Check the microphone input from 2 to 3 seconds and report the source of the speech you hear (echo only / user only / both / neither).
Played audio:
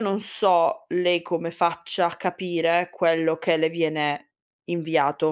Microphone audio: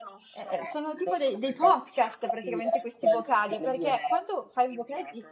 both